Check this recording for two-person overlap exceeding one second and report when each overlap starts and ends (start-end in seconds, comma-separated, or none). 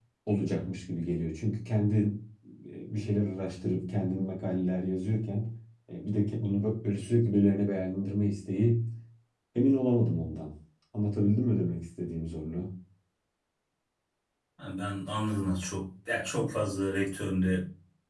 none